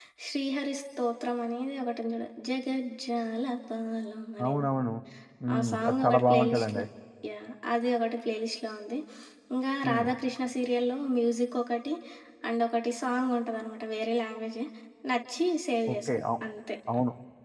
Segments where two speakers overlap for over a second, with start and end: 5.5-6.8

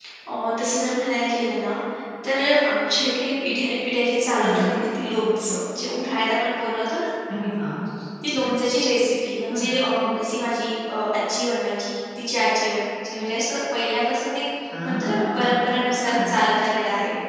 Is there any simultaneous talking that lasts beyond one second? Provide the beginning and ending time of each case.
14.8-16.3

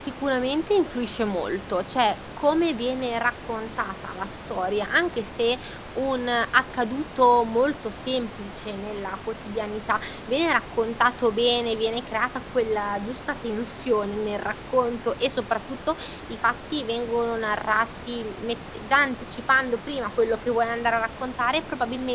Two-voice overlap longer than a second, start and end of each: none

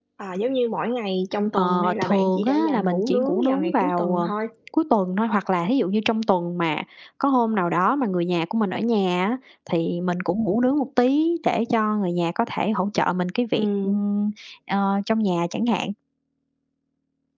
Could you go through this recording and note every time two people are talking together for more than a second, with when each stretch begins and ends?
1.5-4.3

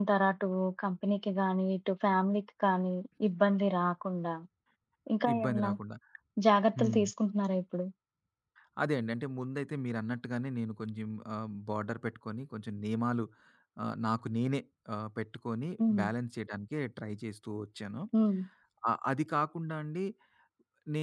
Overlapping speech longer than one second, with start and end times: none

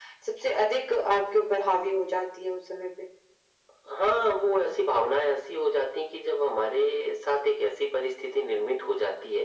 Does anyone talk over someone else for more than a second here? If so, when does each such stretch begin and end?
none

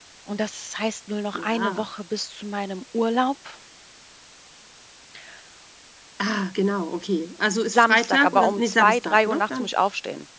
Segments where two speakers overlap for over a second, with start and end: 7.7-9.7

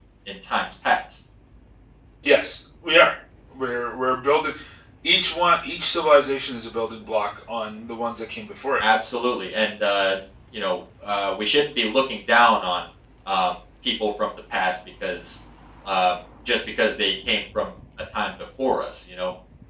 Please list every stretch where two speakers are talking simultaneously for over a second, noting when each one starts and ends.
none

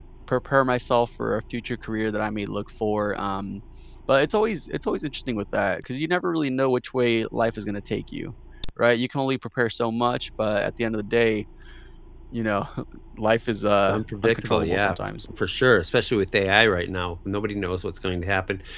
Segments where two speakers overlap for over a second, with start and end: 13.9-15.2

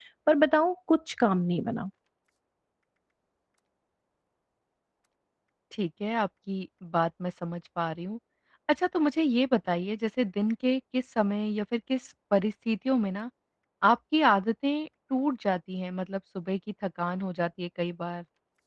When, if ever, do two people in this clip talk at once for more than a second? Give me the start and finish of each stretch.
none

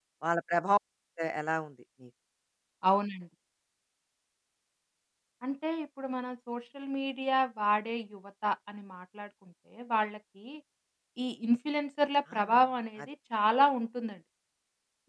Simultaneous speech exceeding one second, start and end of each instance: none

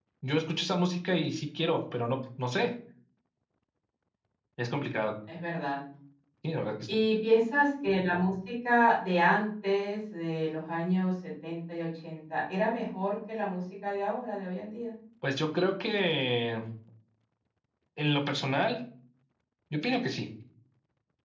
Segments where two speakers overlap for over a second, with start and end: none

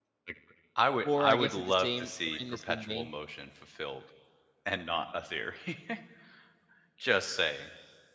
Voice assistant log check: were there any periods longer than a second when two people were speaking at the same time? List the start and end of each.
1.1-3.1

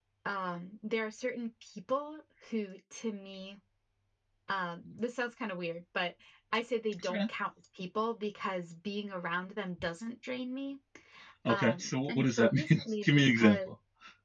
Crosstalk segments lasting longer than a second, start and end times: 11.5-13.7

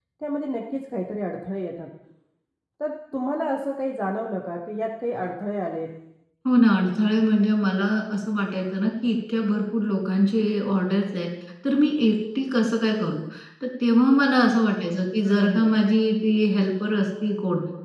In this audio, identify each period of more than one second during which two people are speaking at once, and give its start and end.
none

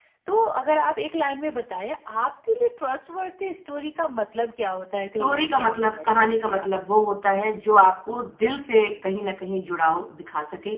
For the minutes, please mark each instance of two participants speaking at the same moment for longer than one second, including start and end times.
5.2-6.7

